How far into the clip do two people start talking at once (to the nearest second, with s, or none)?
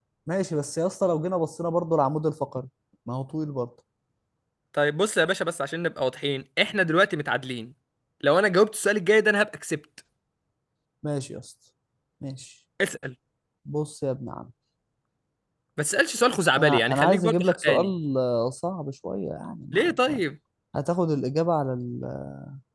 17 s